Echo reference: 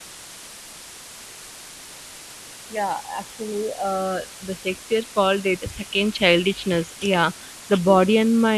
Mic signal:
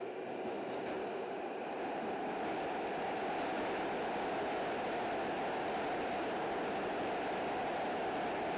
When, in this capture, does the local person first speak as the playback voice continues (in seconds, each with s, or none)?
none